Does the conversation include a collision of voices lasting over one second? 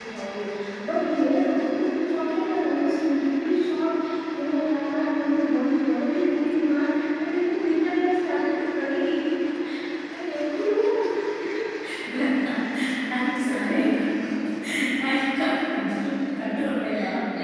No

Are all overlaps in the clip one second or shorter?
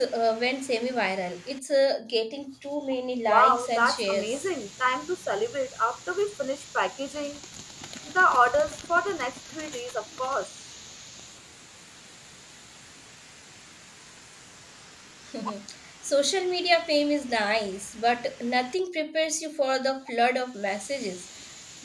No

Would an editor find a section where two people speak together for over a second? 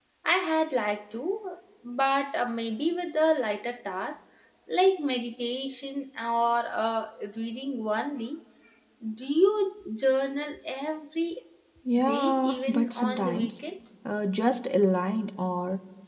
Yes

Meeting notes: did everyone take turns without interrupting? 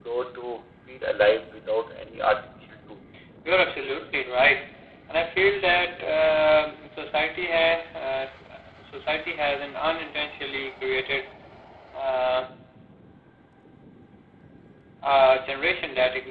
Yes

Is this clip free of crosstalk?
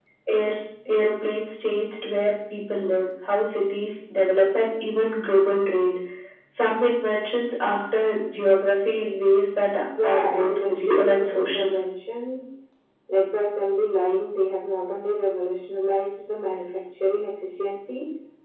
No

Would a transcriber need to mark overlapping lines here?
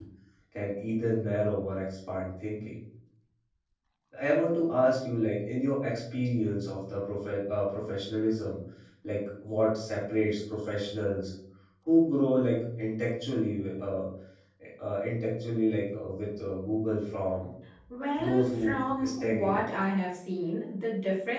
Yes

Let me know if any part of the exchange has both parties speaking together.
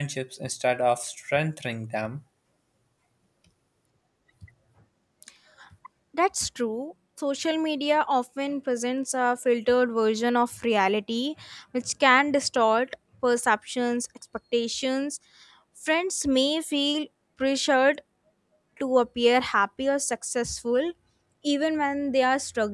No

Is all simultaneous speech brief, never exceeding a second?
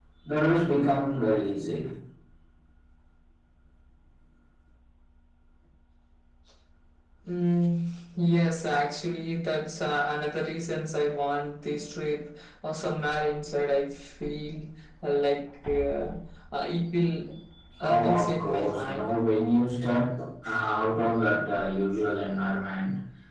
No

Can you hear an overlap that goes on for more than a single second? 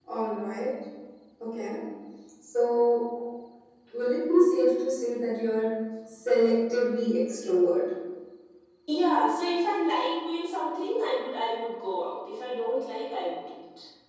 No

